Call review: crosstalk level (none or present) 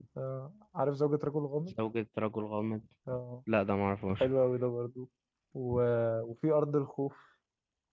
none